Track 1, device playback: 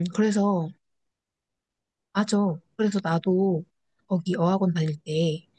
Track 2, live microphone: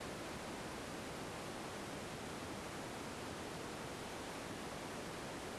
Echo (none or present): none